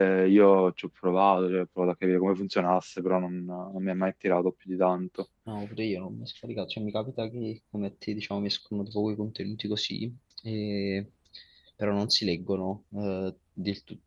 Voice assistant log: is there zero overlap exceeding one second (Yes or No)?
Yes